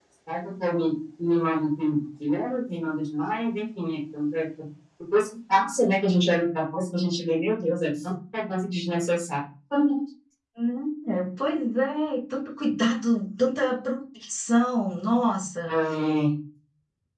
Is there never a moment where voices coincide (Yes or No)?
Yes